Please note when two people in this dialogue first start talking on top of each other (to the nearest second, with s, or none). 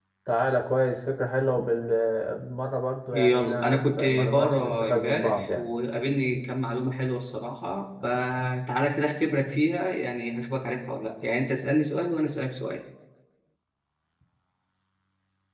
3 s